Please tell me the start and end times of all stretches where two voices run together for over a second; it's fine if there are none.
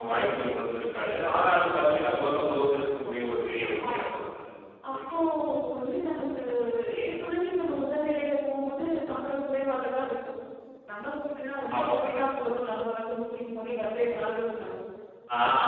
none

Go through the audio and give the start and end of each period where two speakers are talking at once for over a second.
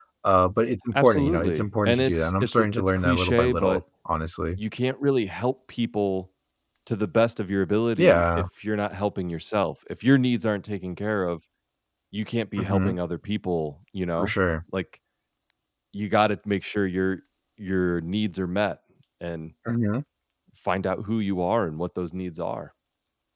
0.9-3.8

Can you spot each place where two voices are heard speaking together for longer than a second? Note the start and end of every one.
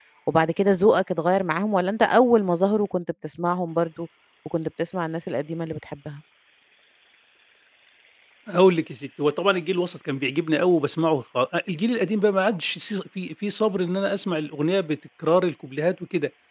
none

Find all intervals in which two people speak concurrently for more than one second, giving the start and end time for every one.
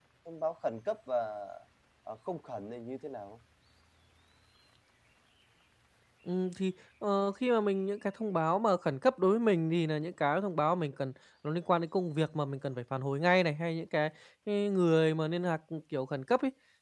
none

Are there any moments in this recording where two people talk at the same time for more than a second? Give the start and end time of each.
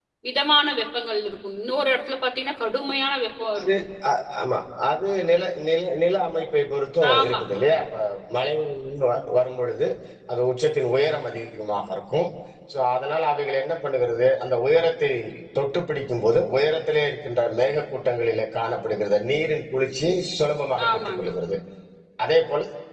none

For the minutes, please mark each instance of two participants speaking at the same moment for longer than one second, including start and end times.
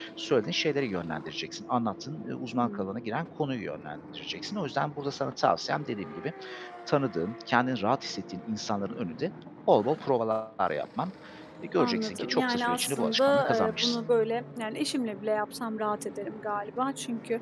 11.8-14.0

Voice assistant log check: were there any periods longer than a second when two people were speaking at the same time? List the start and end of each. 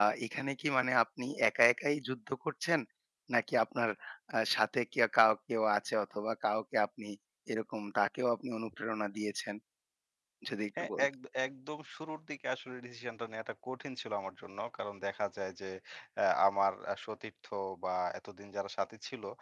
none

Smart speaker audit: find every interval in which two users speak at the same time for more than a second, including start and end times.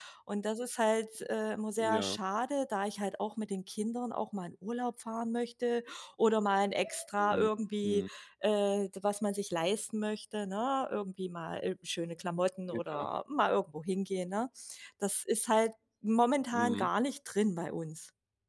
none

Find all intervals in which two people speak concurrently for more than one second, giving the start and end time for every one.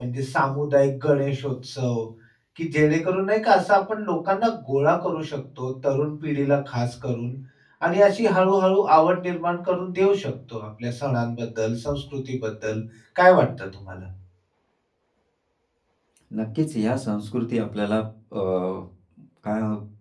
none

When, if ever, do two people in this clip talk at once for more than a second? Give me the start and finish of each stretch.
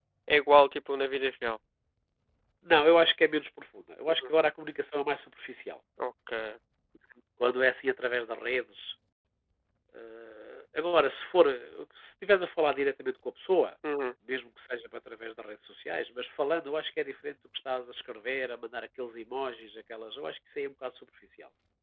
none

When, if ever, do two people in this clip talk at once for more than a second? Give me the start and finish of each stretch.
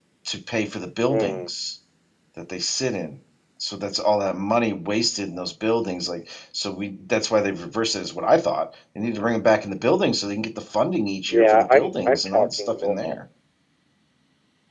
11.3-13.0

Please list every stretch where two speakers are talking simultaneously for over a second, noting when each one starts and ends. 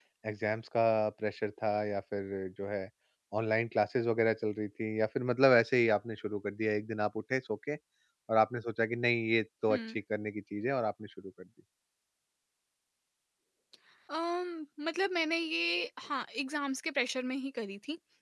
none

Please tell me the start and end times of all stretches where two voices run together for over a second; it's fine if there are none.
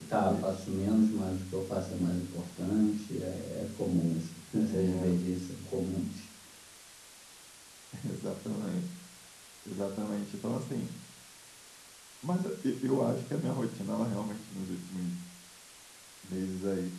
none

